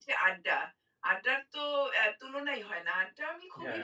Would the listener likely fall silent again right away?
Yes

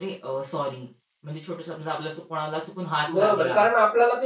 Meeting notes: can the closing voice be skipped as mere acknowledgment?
No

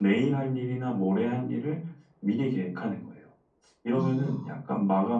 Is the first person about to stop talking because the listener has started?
No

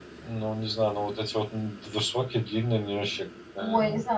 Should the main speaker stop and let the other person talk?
Yes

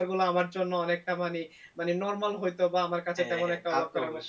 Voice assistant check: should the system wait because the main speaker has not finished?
No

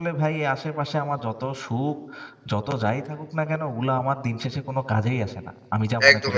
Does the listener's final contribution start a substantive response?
Yes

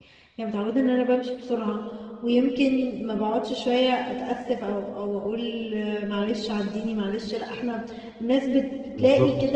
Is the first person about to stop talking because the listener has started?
No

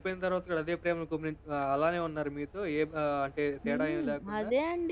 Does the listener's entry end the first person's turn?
Yes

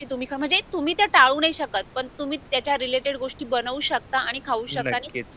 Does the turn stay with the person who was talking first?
Yes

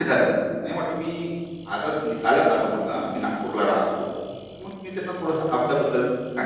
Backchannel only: Yes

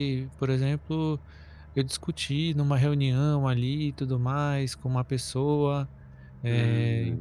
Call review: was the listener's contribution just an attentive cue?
Yes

